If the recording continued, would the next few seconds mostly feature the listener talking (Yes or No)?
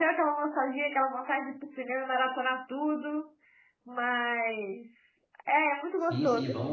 Yes